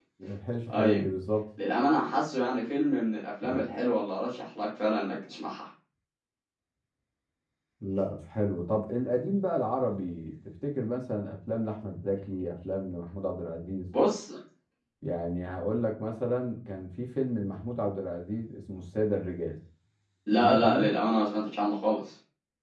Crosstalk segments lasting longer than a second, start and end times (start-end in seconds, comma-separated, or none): none